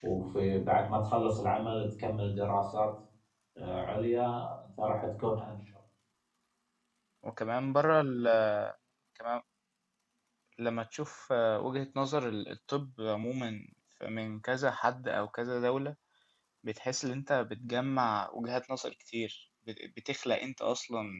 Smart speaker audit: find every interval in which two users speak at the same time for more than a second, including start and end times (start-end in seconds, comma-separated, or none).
none